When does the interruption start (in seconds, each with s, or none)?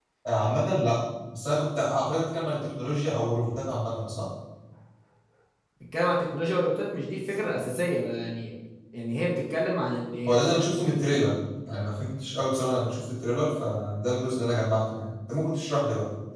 none